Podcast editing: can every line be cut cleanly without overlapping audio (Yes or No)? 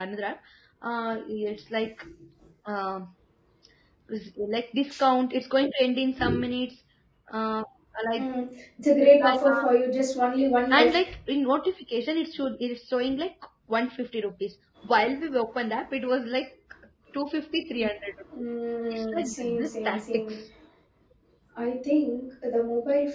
No